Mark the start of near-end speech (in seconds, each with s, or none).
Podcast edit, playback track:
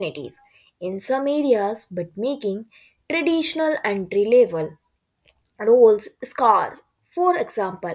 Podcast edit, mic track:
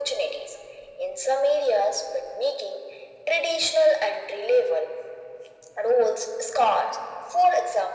none